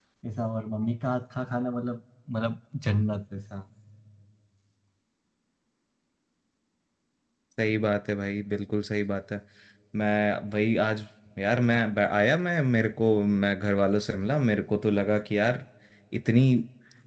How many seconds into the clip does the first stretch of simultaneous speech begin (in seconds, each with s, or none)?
none